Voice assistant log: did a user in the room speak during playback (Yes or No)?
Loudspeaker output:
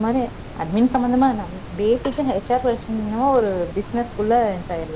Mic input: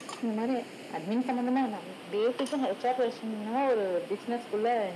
No